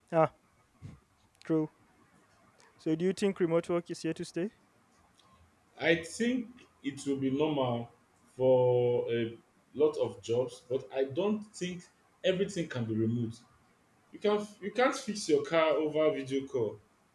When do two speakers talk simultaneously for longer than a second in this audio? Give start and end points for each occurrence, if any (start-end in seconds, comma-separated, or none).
none